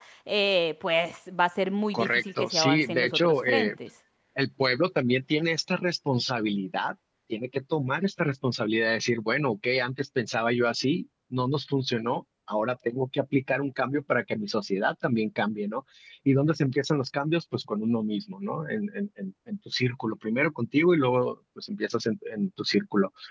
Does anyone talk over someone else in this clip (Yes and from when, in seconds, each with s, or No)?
Yes, from 1.9 s